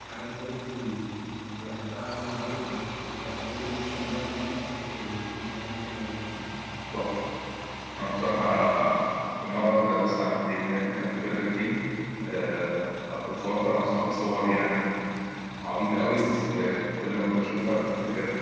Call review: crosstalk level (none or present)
none